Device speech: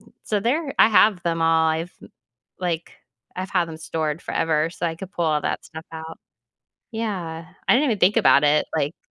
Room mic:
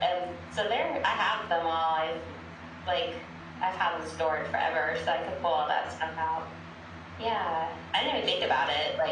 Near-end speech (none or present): none